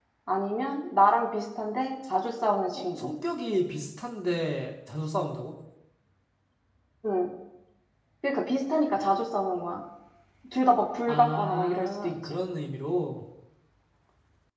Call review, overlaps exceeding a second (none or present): present